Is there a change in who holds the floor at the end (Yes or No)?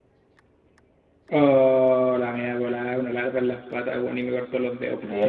No